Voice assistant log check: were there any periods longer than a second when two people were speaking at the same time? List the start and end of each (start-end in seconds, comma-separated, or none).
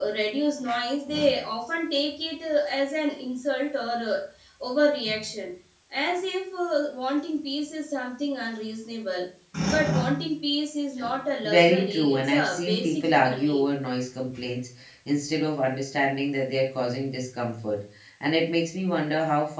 11.4-13.6